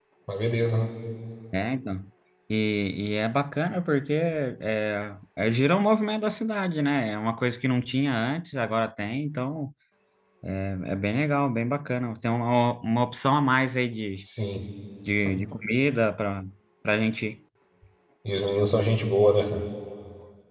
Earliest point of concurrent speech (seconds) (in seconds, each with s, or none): none